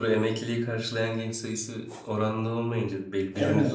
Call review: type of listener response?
taking over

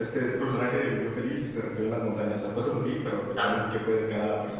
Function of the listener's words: listening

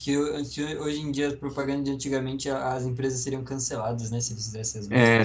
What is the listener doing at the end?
taking over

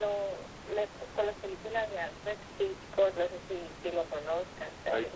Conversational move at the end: taking over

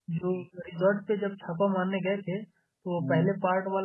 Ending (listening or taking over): listening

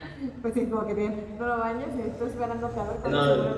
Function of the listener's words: taking over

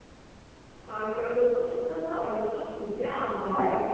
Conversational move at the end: listening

